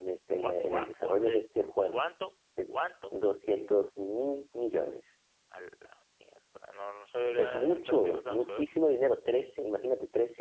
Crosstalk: present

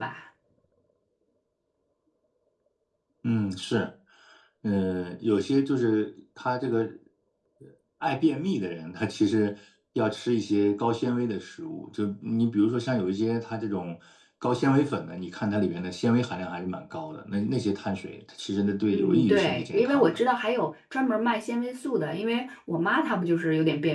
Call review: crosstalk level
present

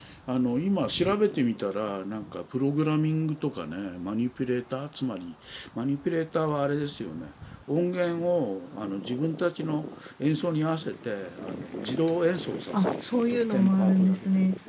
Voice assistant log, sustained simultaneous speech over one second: present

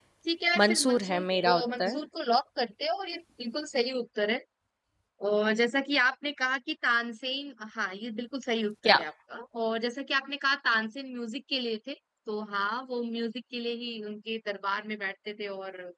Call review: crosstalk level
present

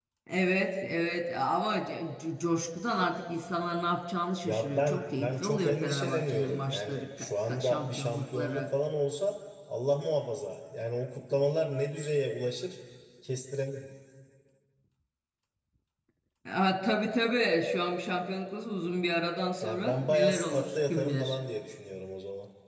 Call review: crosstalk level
present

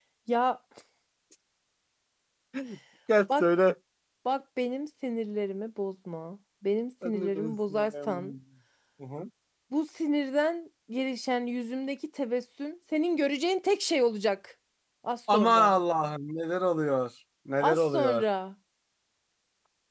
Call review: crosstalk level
present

